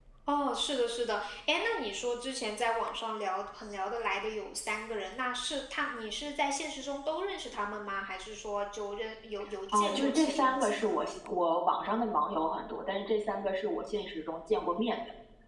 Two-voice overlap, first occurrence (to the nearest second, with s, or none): 10 s